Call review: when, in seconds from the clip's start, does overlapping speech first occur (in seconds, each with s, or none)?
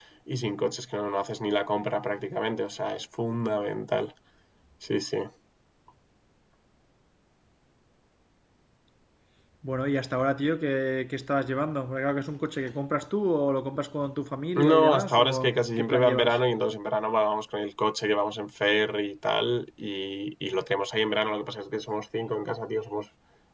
14.6 s